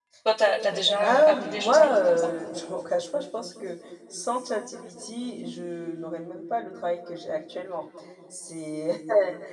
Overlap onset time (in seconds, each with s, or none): 1.0 s